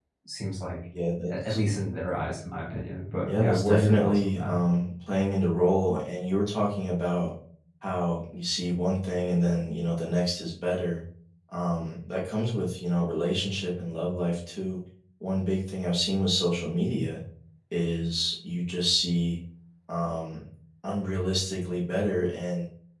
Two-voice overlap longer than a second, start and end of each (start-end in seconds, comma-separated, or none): 3.2-4.6